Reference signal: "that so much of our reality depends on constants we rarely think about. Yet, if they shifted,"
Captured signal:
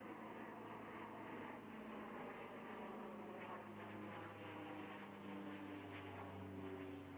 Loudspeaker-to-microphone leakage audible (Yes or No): No